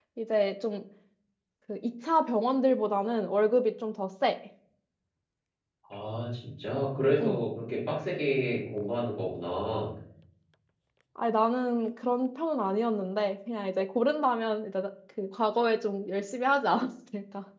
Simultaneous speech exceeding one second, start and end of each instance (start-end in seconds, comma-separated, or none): none